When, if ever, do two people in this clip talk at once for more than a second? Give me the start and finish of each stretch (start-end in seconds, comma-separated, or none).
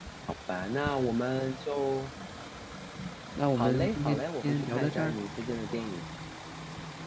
3.6-5.2